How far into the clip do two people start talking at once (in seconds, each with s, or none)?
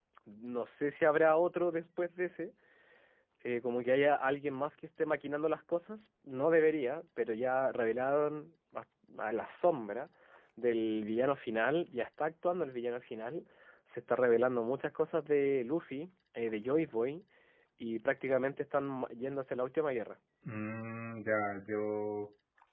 none